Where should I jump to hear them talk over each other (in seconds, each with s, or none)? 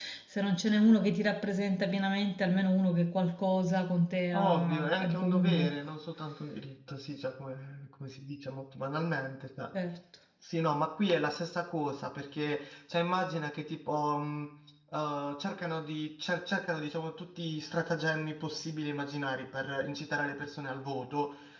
4.3 s